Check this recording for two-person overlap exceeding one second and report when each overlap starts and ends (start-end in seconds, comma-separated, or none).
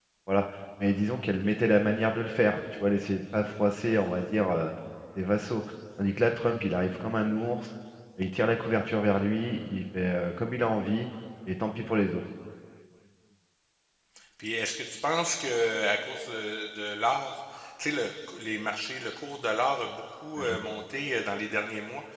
none